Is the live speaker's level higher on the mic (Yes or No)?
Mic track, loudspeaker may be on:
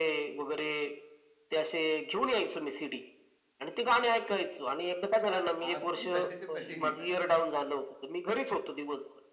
No